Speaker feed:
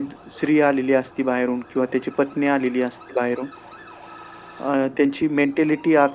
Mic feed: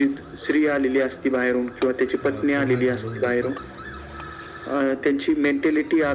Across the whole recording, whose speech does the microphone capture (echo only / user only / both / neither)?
both